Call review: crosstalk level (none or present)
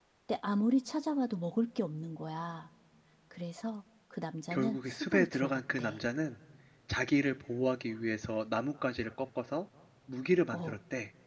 present